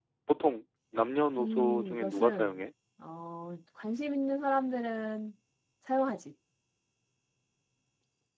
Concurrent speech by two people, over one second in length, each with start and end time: 1.4-2.6

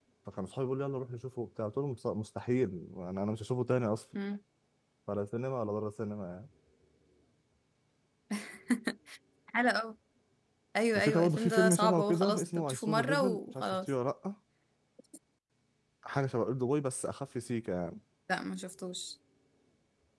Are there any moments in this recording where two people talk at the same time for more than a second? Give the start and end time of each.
10.9-13.9

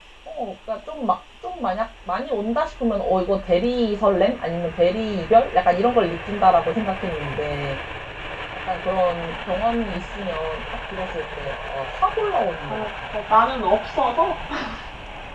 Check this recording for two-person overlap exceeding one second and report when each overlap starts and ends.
none

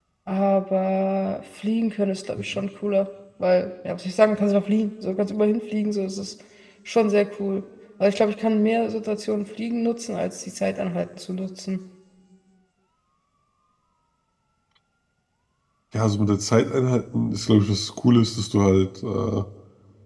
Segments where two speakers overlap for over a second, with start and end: none

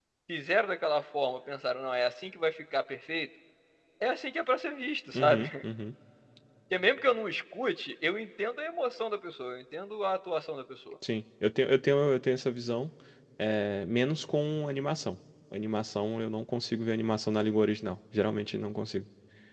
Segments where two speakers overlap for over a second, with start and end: none

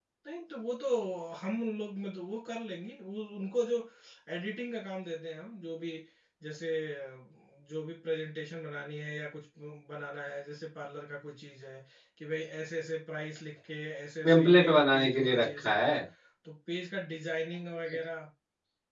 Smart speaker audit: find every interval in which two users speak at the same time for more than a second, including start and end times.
14.2-15.9

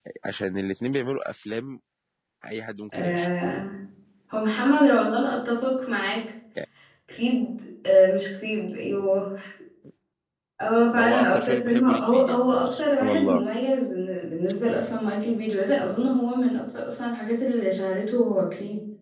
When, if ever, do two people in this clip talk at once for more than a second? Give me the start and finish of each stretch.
10.9-13.4

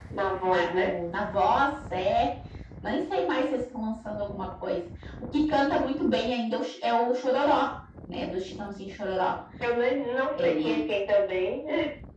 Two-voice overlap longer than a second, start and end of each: none

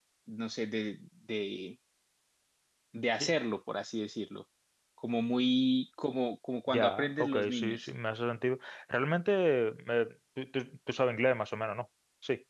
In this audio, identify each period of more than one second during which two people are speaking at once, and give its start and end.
6.7-7.9

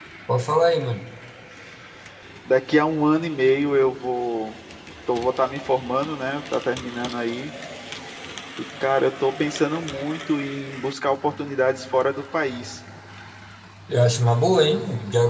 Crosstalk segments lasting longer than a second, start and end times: none

